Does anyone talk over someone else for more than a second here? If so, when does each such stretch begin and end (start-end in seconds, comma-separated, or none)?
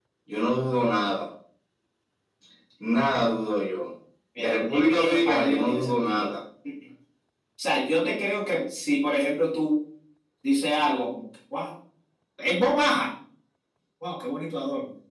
4.4-6.3